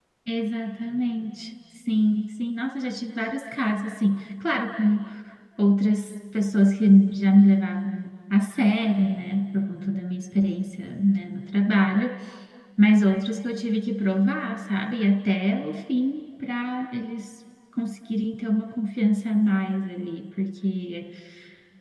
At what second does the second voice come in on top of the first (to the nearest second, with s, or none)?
none